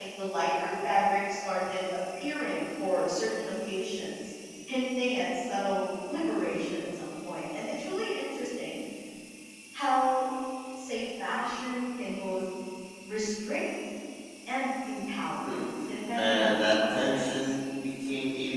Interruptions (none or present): present